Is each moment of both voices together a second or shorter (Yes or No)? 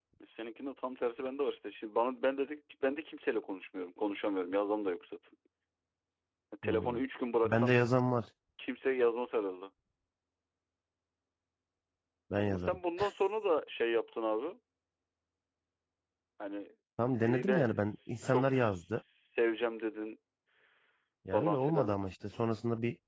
No